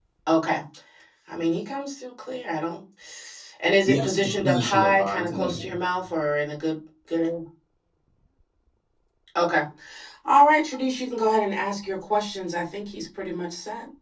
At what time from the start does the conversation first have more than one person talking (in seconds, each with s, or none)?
3.9 s